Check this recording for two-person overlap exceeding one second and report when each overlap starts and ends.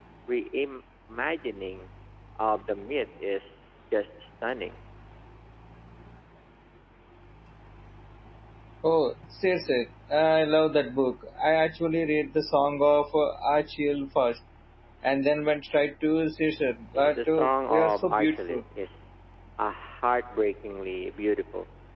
16.9-18.6

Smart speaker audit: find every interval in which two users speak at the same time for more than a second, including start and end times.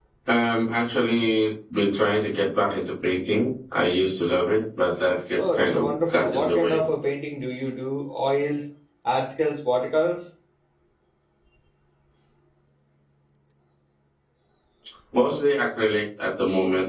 5.4-6.8

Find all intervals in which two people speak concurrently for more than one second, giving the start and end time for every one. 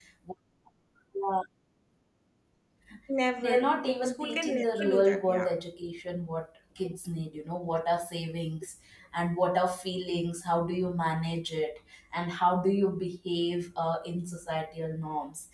3.4-5.5

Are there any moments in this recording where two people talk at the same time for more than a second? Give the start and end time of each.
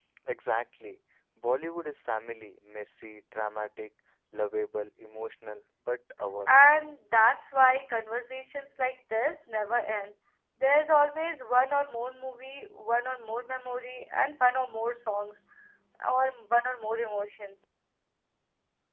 none

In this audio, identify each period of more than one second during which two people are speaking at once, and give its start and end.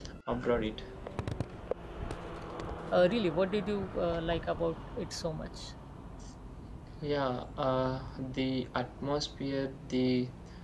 none

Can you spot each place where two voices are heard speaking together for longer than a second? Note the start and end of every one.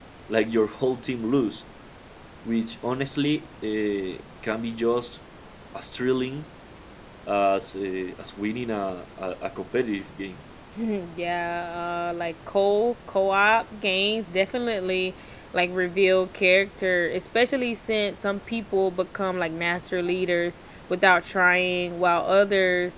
none

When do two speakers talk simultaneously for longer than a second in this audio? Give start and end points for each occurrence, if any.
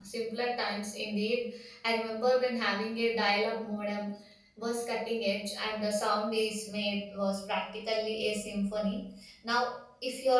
none

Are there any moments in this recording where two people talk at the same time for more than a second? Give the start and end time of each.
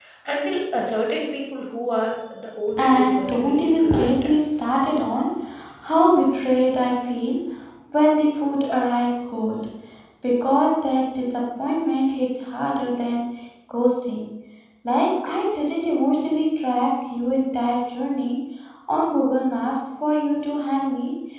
2.8-4.7

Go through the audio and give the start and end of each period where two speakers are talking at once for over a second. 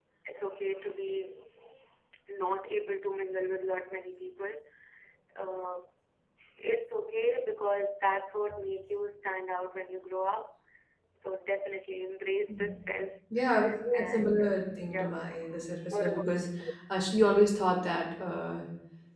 13.9-15.2

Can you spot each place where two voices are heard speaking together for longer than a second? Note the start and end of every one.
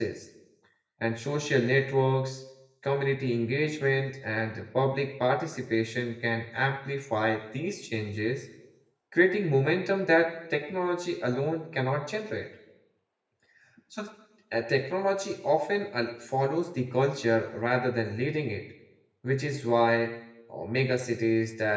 none

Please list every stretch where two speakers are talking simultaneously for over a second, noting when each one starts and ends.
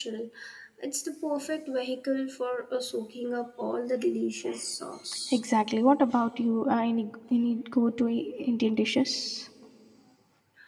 none

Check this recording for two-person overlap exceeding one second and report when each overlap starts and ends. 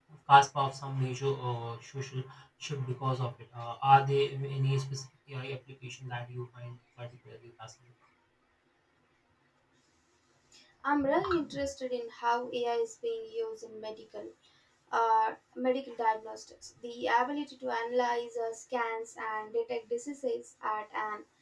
none

